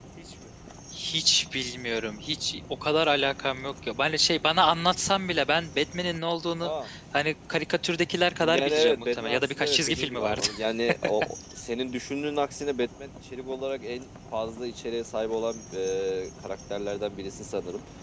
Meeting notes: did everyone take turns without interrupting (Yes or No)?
No